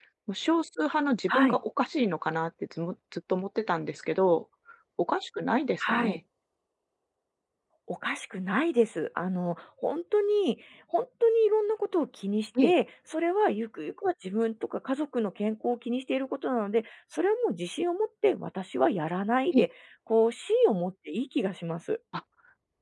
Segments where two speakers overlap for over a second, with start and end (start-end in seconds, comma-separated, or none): none